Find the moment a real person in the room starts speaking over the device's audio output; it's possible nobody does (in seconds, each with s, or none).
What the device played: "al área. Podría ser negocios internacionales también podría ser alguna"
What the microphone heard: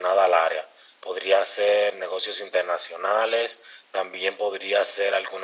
none